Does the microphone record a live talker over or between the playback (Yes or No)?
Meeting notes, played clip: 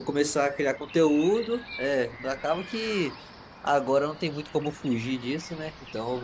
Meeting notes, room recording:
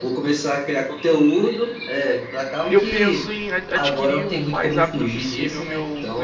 Yes